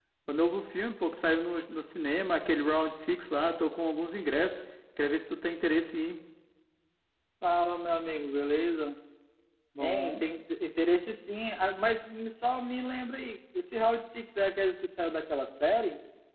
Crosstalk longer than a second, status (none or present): none